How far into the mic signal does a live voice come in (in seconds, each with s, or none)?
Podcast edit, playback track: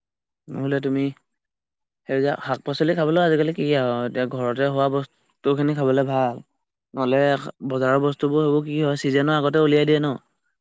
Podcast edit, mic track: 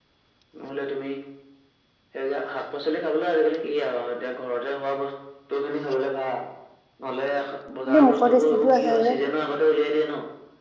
7.9 s